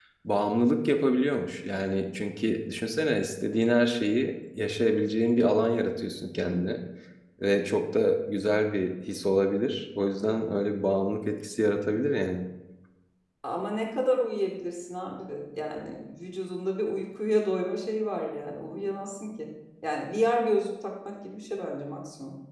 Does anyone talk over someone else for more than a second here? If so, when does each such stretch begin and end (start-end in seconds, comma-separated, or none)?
none